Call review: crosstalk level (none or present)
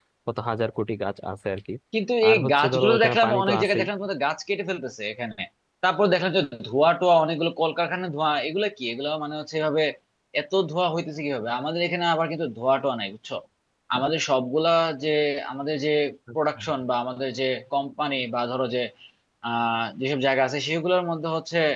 present